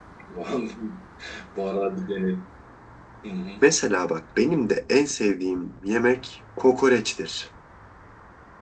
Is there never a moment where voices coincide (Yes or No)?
Yes